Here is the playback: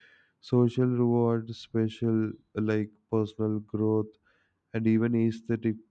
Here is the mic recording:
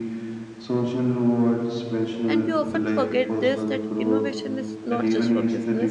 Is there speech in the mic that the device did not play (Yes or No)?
Yes